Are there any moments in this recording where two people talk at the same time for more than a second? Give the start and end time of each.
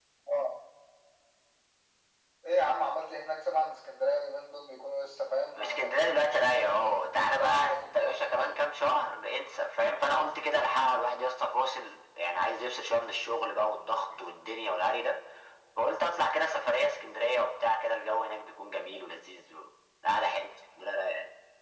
5.5-8.6

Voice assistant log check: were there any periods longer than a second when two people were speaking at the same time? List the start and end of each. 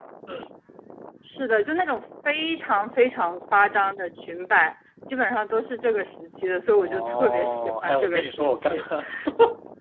6.7-8.8

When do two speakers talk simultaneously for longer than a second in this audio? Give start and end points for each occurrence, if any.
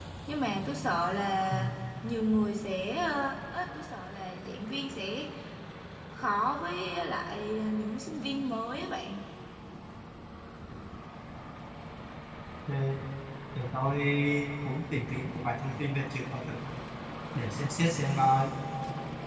none

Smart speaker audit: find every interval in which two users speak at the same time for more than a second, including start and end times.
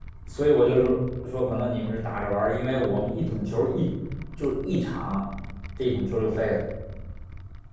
none

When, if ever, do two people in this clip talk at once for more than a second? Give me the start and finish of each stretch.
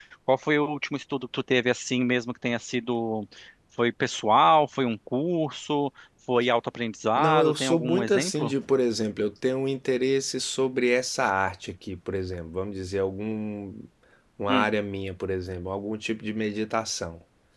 7.2-8.5

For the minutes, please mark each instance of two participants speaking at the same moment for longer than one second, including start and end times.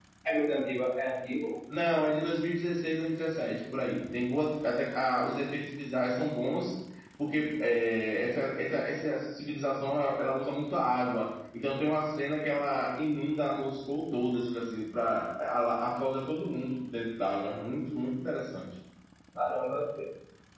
none

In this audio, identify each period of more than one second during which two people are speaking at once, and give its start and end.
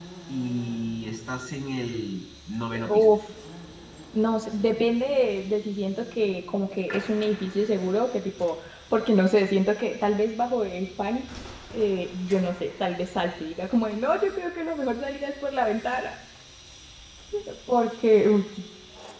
none

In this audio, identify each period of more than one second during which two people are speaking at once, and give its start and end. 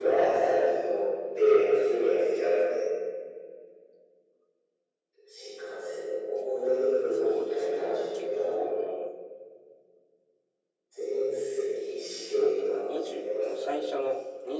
7.1-8.7, 12.2-13.8

